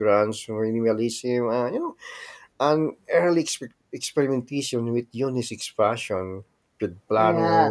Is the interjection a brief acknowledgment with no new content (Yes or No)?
Yes